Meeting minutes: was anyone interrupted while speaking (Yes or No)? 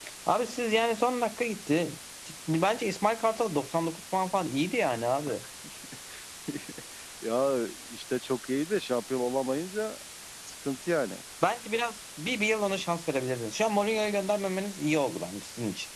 No